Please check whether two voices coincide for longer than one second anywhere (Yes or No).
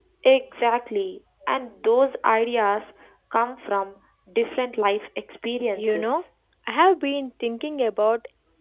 No